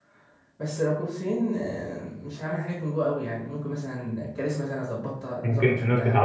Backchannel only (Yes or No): No